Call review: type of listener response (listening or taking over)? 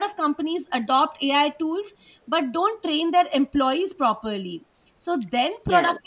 listening